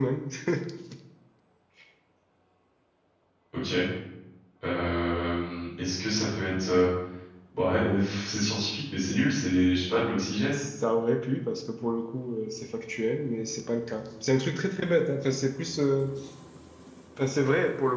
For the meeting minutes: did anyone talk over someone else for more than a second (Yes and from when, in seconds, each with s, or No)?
No